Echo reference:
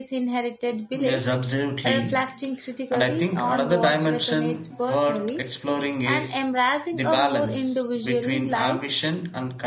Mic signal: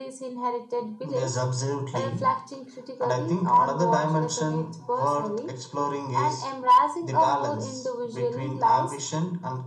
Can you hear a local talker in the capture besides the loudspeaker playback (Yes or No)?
No